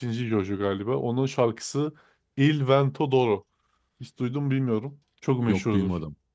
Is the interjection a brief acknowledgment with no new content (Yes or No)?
Yes